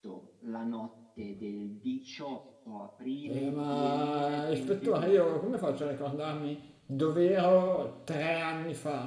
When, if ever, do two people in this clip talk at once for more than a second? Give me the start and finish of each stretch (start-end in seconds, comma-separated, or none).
3.3-5.3